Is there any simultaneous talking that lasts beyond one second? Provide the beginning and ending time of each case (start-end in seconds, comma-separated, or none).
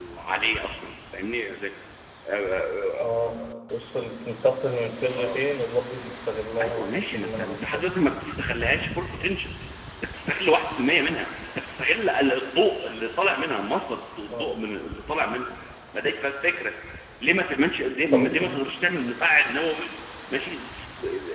6.6-7.9